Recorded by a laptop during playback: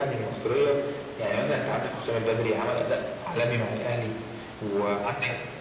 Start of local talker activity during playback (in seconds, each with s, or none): none